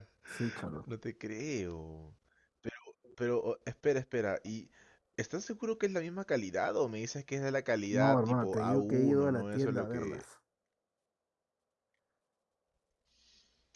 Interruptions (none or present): present